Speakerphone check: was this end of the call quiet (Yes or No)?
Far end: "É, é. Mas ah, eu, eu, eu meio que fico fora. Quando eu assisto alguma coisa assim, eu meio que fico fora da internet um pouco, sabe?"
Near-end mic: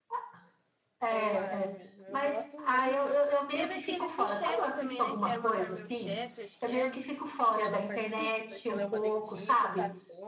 No